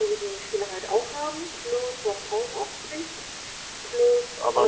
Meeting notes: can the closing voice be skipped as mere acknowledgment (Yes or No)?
No